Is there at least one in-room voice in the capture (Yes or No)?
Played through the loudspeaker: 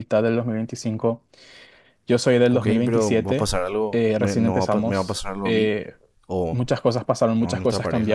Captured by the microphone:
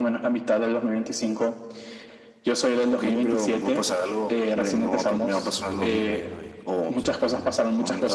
Yes